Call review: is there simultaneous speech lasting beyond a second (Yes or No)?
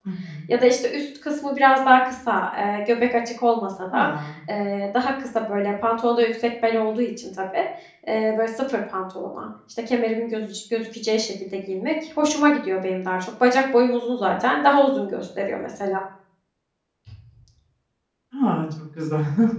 No